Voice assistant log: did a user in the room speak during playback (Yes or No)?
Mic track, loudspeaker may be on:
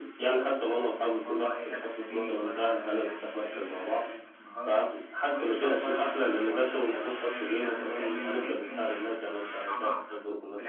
No